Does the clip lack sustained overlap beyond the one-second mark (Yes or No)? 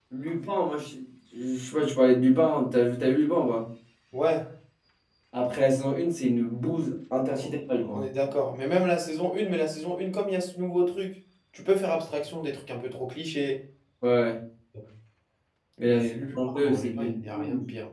No